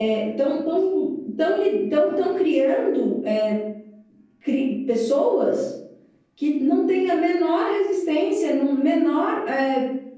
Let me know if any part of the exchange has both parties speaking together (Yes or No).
No